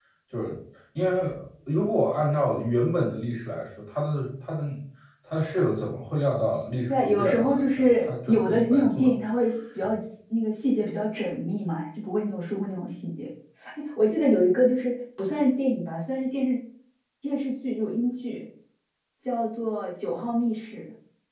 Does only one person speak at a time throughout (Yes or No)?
No